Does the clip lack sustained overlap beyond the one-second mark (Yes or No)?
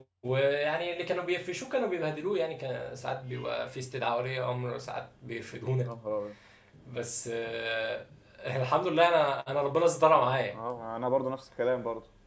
Yes